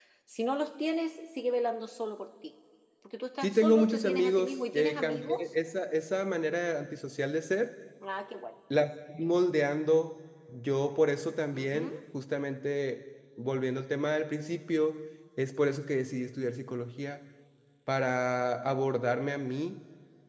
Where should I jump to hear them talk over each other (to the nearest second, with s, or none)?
3 s